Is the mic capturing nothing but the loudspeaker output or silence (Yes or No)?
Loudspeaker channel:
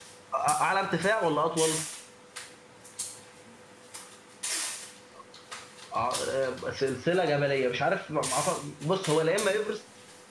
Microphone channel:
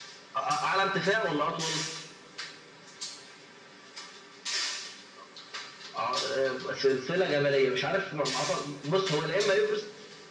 Yes